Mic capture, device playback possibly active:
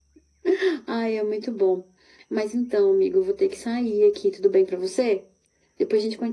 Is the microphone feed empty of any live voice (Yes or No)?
Yes